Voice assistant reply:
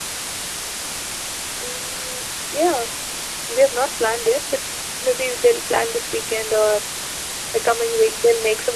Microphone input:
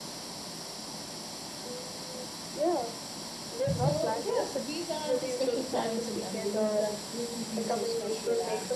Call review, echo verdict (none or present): present